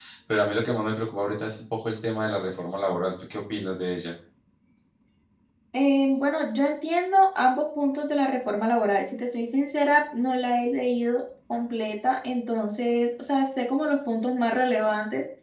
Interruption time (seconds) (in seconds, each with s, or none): none